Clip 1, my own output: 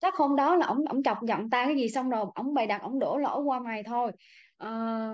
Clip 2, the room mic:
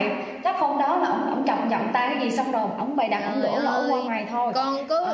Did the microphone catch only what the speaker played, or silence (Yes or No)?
No